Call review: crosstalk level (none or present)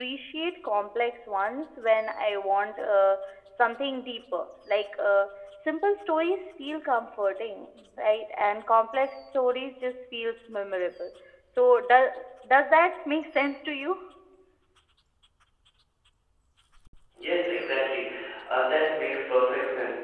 none